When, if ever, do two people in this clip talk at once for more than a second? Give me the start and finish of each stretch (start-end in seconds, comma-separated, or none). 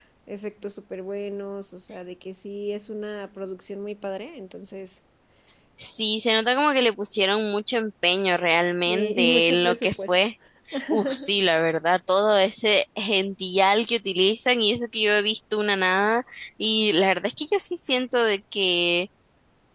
8.9-10.2